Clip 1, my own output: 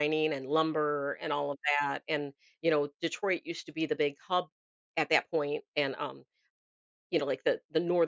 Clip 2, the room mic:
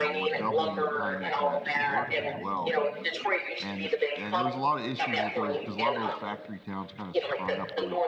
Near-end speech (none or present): present